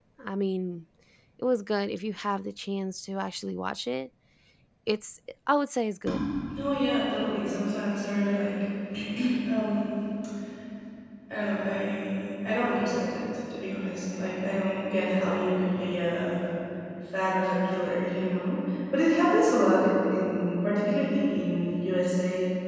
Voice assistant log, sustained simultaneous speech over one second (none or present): none